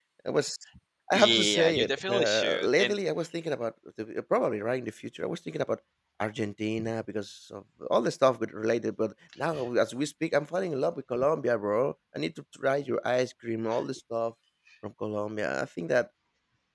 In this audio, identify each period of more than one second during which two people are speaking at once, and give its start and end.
1.1-3.0

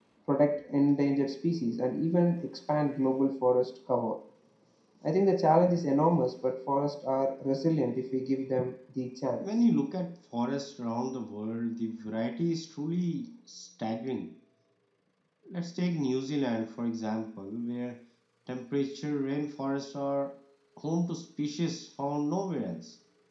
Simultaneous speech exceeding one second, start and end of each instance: none

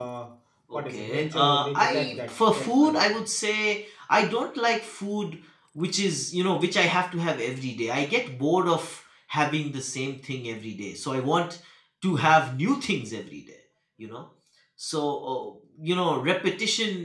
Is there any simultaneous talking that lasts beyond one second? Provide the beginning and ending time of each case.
0.7-3.0

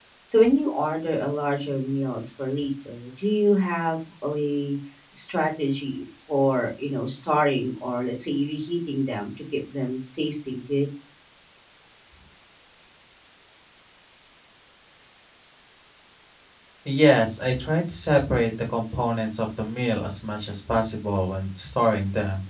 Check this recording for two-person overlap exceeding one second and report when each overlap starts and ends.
none

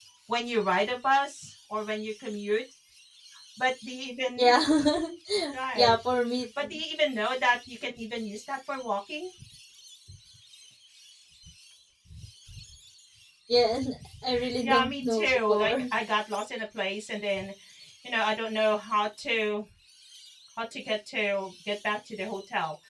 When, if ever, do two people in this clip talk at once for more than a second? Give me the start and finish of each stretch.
14.6-15.8

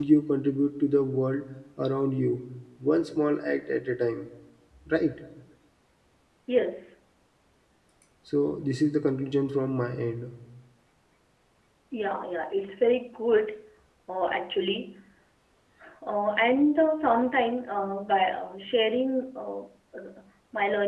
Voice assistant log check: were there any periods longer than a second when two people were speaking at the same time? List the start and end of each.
none

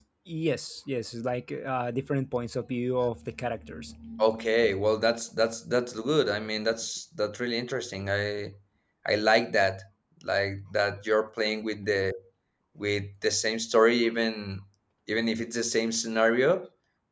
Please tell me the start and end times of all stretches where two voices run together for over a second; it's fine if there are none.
none

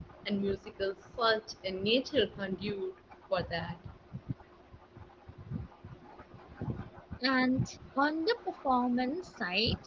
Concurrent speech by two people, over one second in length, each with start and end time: none

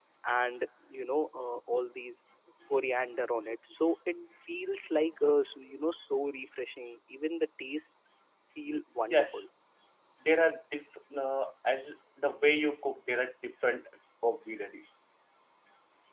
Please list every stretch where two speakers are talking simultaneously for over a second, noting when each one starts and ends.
none

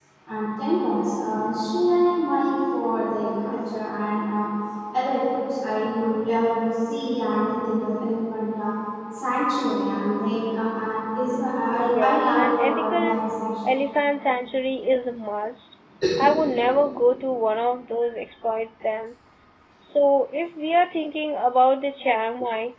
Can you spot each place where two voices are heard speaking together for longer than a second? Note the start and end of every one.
11.9-13.2

